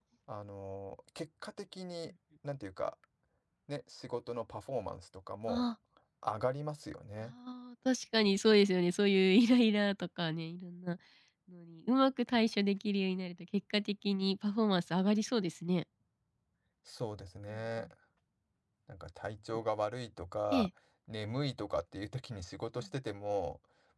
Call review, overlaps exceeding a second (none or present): none